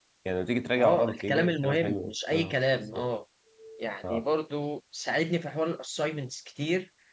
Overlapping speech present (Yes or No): Yes